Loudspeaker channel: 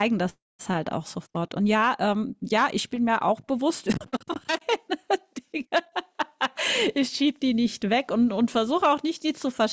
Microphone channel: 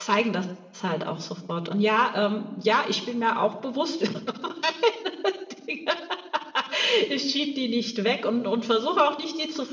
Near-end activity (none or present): none